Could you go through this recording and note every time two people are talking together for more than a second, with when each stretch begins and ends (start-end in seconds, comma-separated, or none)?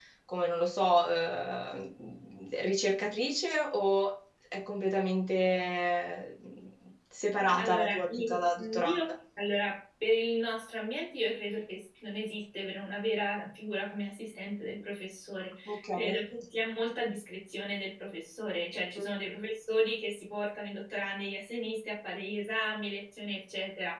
7.4-9.0